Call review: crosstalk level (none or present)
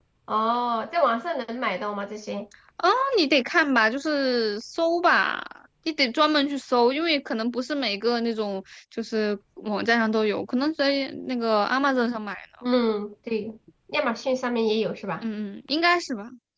none